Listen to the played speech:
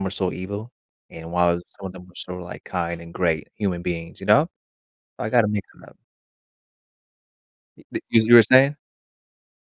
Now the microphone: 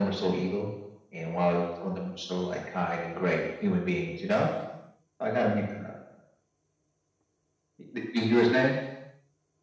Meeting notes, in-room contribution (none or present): none